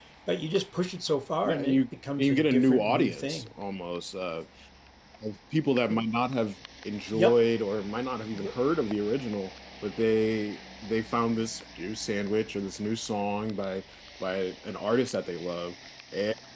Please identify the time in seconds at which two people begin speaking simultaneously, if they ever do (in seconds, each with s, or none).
1.4 s